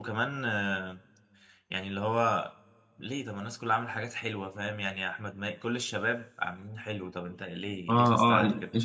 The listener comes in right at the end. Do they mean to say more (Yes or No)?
Yes